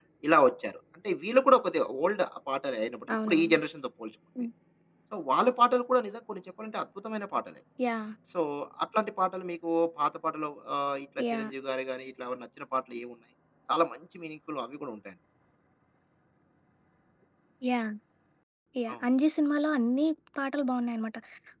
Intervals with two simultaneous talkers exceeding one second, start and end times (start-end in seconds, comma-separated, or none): none